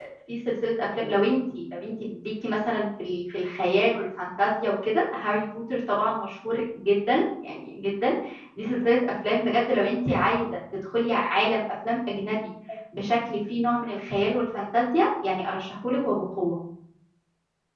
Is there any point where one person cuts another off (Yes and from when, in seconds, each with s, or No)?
No